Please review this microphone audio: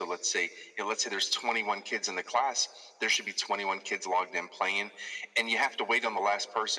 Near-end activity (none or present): none